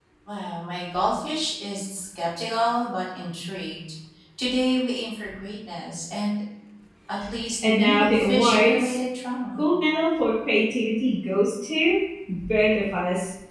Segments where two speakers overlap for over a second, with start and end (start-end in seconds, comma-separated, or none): 7.7-9.0